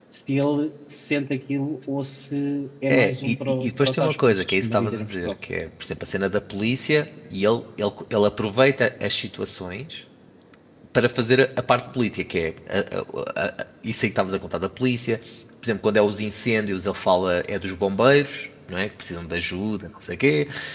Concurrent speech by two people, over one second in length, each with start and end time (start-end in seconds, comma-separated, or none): 2.9-5.3